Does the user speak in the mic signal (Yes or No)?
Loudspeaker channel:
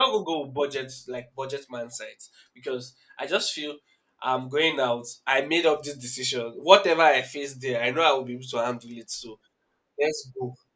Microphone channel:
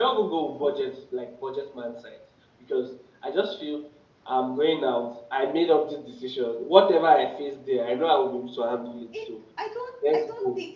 Yes